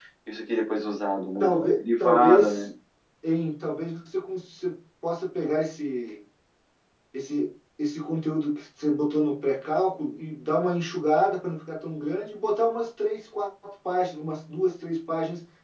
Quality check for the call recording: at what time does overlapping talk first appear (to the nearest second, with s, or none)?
1 s